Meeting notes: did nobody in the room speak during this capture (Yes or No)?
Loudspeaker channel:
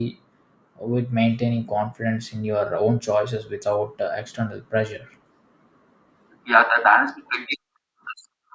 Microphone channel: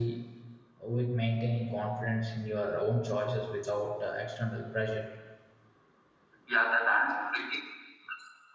Yes